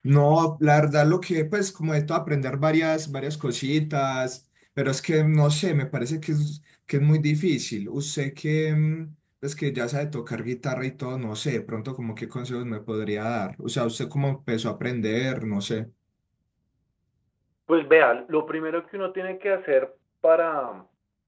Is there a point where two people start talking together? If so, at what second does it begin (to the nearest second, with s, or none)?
none